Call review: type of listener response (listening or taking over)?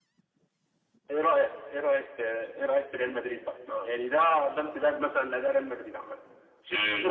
taking over